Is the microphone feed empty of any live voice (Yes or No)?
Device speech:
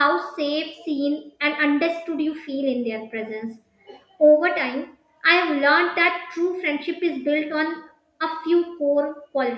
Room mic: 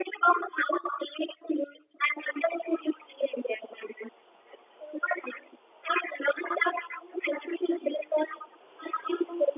Yes